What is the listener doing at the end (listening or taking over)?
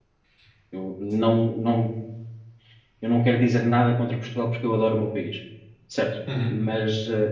listening